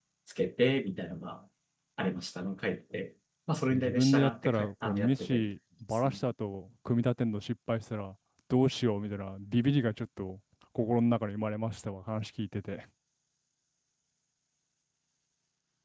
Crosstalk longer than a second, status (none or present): present